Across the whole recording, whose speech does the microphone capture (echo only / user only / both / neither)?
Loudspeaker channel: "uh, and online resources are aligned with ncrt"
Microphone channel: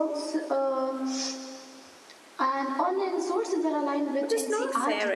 both